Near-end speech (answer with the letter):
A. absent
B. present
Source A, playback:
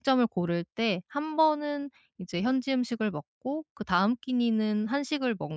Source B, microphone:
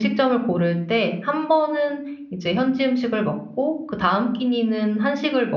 A